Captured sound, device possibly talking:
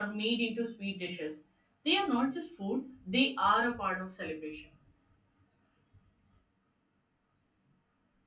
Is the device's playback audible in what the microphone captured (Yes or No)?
No